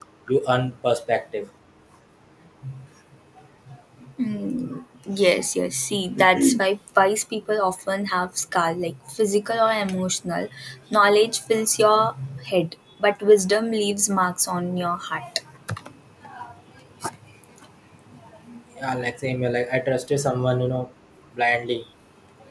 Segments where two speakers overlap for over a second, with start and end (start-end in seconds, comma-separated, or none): none